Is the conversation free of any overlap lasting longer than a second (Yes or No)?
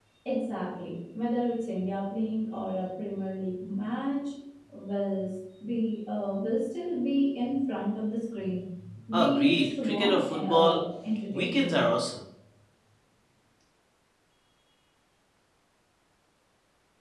No